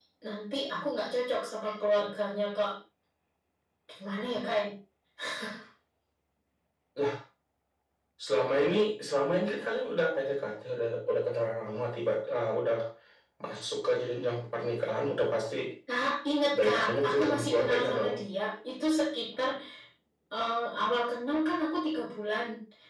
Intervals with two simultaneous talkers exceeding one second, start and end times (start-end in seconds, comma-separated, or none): 16.6-18.1